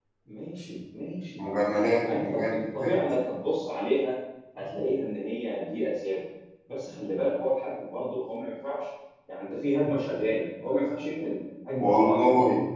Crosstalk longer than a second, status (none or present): present